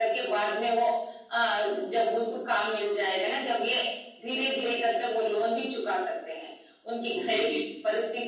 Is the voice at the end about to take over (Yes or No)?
No